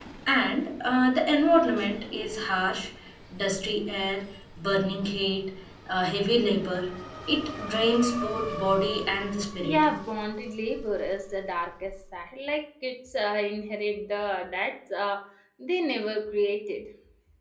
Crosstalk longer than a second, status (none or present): none